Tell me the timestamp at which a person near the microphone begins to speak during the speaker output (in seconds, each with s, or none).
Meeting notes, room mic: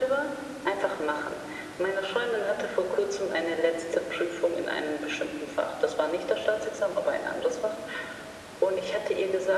none